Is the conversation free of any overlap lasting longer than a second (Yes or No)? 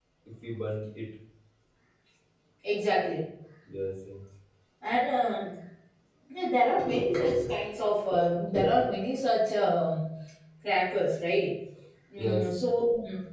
Yes